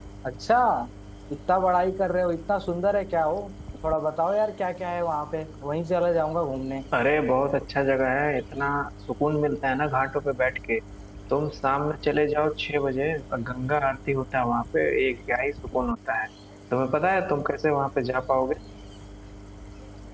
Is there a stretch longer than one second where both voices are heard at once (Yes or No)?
No